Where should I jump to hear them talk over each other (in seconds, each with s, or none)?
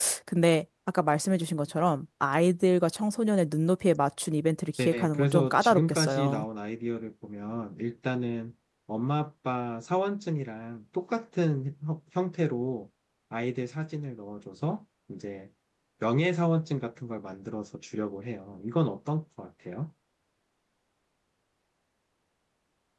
4.8 s